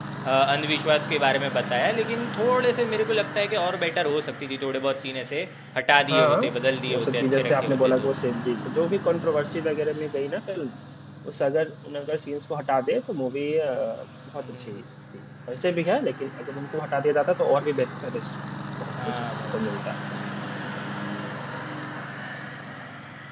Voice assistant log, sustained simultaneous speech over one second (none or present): present